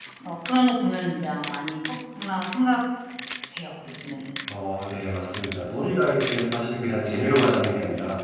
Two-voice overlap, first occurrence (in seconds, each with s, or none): none